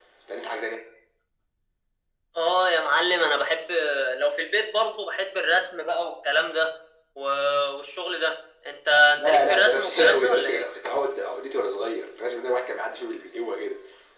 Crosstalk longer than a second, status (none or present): present